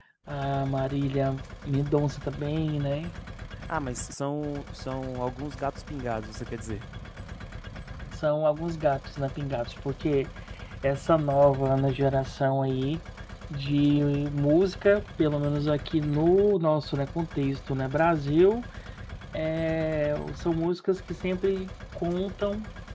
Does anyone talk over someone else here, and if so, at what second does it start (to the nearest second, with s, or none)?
none